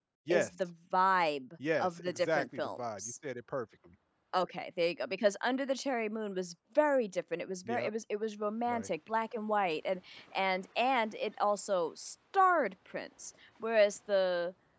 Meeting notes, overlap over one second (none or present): present